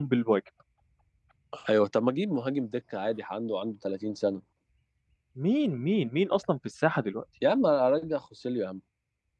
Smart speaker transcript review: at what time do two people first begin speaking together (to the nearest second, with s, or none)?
none